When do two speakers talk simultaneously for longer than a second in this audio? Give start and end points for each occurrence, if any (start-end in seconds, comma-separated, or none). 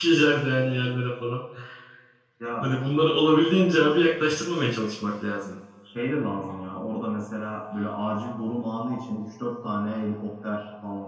none